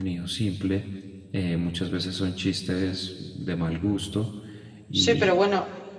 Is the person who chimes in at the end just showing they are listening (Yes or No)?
No